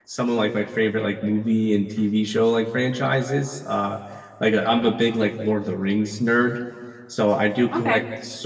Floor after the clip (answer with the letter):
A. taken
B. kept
B